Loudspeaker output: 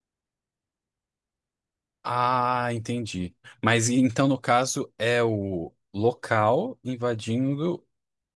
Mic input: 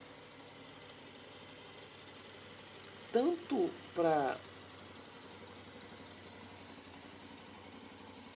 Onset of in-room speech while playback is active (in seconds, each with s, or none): 3.1 s